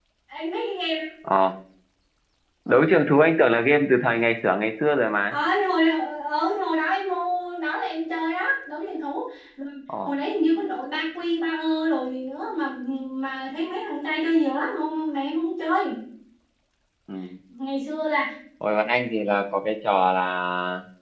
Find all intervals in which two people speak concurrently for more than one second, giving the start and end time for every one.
none

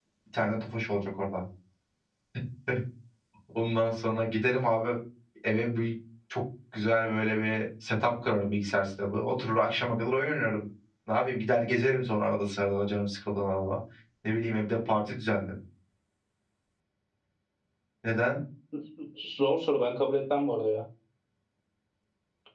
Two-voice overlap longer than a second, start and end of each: none

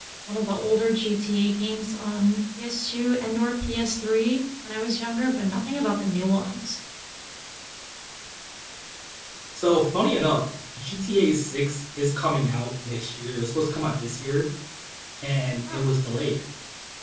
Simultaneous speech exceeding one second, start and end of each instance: none

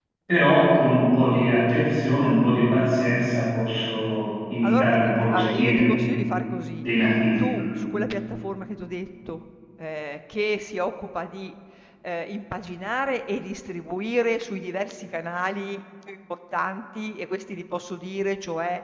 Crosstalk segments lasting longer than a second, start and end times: 4.6-5.9

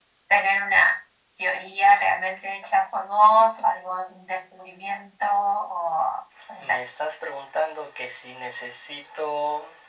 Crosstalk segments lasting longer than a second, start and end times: none

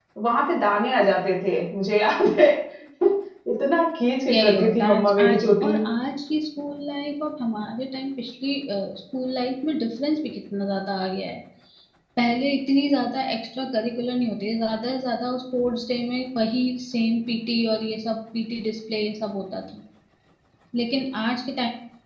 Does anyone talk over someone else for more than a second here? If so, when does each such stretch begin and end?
4.3-5.7

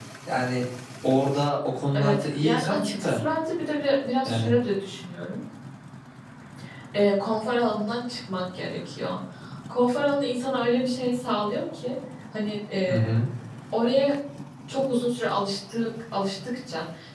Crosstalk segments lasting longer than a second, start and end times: 1.9-3.2

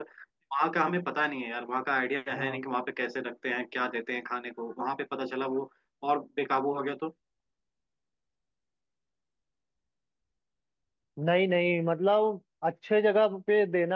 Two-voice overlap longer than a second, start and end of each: none

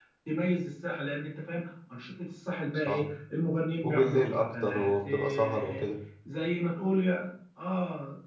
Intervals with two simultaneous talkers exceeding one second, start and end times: 3.8-5.8

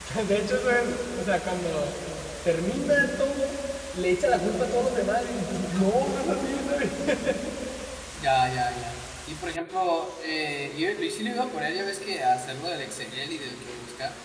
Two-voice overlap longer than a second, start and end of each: none

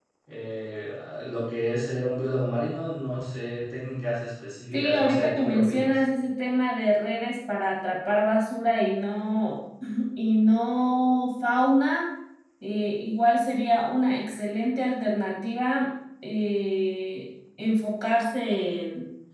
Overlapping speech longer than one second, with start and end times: 4.7-6.0

